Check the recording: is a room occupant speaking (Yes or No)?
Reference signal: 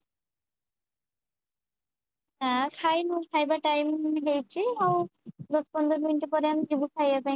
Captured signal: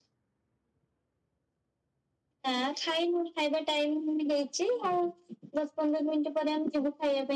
No